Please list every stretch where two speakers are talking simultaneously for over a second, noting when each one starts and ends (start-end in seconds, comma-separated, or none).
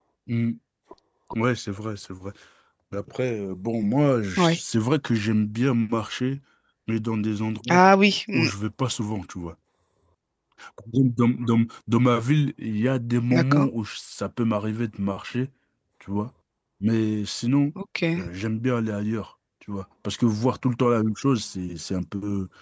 none